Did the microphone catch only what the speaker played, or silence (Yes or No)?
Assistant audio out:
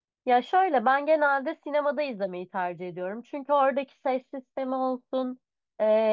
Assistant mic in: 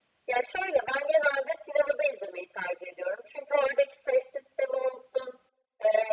Yes